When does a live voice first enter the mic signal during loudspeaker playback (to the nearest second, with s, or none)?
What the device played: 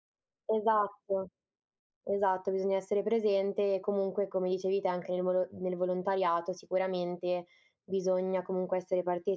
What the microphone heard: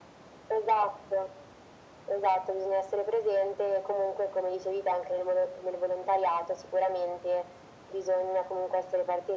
none